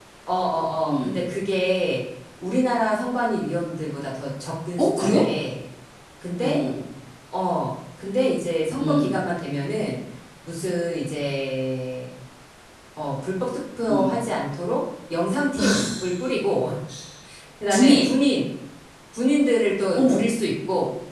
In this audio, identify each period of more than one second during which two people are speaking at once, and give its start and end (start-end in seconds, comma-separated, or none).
none